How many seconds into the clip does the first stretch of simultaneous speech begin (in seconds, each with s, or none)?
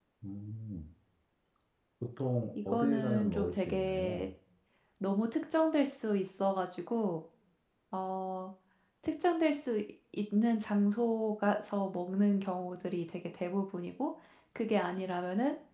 2.7 s